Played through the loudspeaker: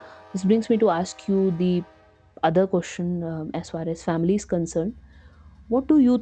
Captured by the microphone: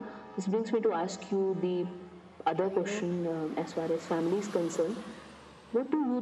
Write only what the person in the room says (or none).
uh, you know